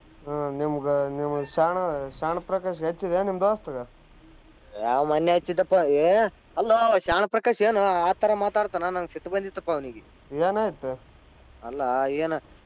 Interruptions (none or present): none